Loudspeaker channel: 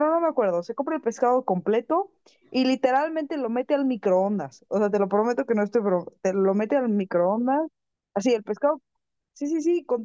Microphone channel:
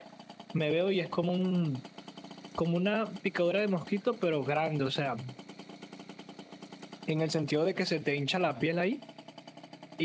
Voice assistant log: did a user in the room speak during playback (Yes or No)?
Yes